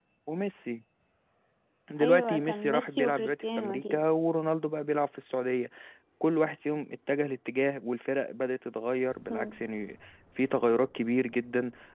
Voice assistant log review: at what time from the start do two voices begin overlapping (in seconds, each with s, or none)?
2.0 s